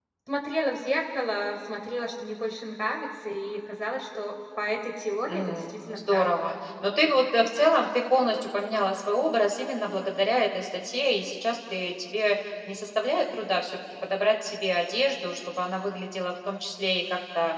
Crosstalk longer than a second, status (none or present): present